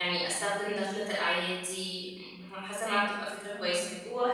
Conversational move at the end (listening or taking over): taking over